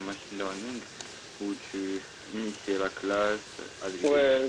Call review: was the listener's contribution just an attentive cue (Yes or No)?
No